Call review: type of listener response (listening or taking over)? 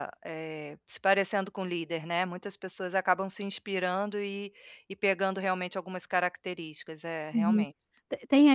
taking over